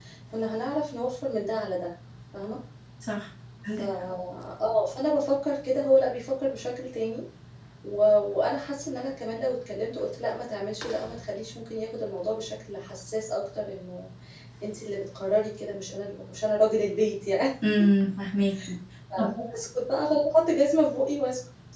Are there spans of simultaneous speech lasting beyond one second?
No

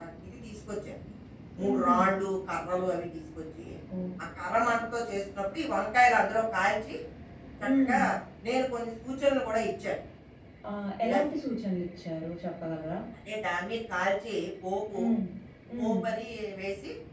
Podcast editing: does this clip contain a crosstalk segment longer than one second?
No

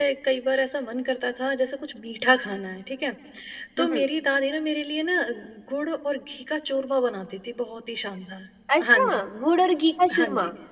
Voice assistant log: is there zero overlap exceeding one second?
Yes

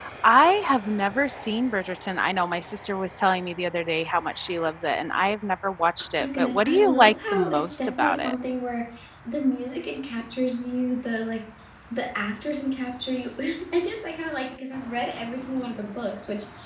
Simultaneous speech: Yes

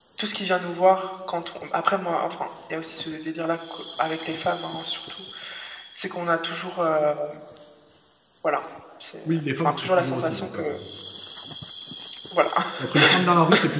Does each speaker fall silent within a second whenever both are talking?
No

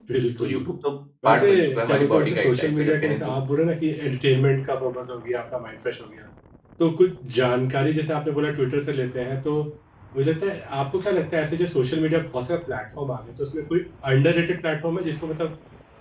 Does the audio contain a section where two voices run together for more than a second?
Yes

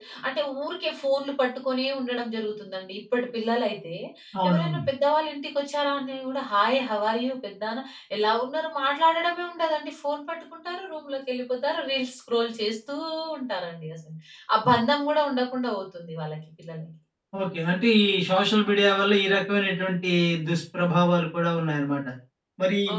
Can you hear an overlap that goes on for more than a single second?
No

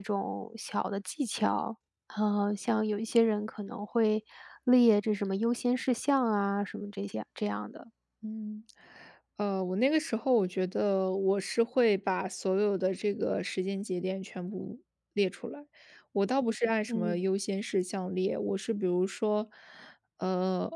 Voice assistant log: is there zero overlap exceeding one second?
Yes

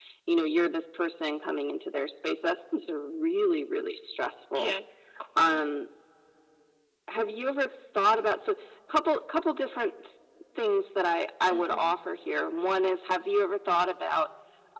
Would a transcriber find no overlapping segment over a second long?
Yes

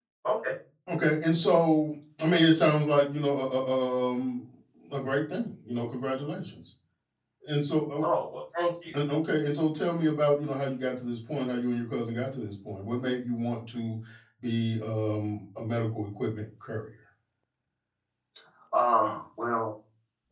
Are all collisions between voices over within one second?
Yes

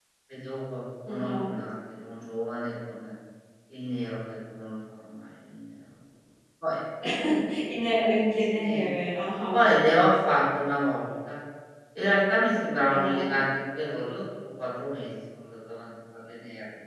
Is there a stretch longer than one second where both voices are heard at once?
No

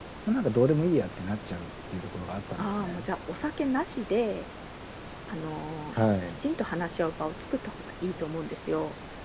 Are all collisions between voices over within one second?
Yes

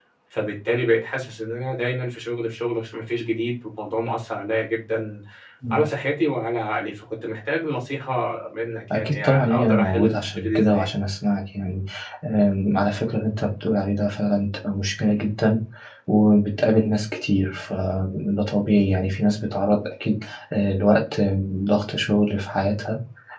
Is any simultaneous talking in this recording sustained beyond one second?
Yes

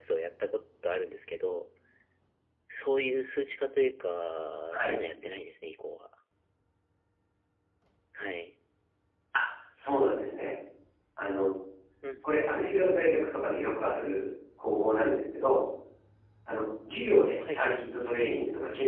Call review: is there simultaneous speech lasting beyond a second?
No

